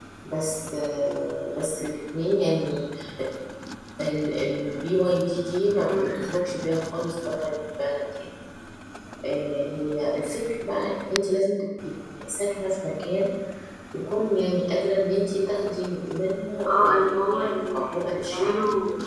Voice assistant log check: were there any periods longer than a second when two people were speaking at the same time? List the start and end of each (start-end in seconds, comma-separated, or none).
16.7-18.6